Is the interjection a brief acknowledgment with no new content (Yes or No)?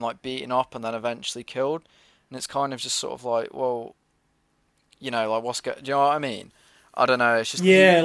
No